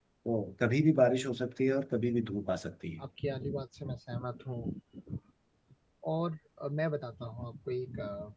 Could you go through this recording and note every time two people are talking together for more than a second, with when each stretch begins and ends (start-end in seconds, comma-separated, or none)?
none